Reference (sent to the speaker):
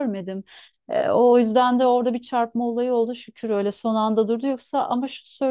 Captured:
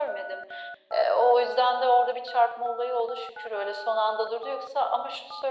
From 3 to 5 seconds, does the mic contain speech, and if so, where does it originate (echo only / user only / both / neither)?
echo only